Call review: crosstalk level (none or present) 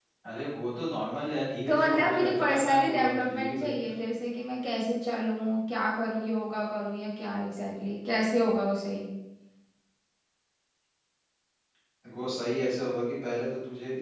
present